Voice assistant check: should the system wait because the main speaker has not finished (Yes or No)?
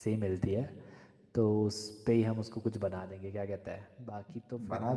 No